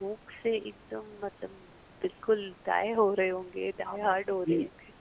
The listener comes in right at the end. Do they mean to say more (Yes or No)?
Yes